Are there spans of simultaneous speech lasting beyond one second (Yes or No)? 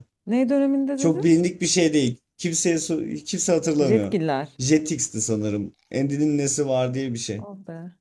No